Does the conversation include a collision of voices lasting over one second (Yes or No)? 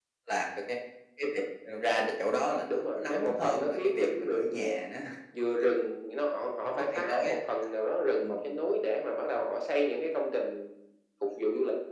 Yes